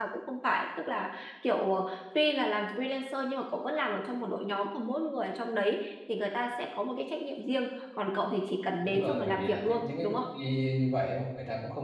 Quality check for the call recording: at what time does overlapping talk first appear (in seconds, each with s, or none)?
8.8 s